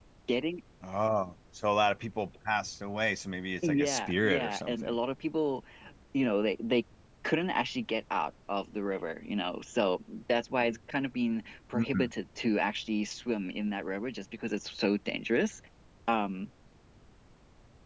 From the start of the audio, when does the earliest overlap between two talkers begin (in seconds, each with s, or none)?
3.6 s